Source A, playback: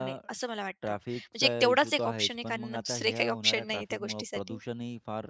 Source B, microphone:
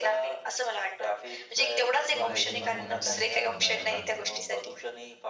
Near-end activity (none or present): present